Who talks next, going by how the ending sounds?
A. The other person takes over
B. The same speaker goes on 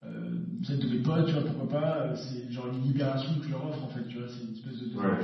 B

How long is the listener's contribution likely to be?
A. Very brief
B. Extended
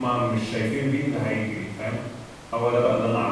A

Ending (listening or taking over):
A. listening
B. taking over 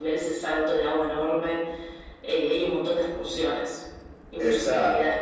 B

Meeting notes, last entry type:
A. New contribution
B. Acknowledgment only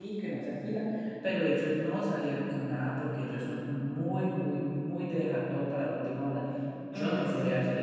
B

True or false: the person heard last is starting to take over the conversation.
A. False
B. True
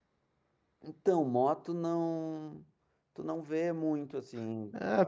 B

